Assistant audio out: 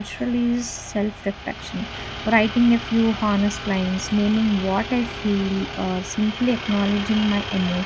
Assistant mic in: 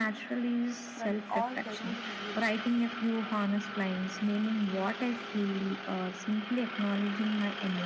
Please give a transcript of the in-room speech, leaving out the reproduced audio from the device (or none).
from all the ruling you